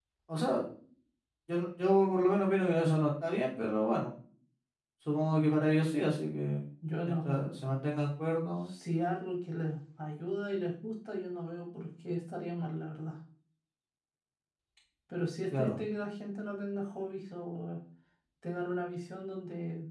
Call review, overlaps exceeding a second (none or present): none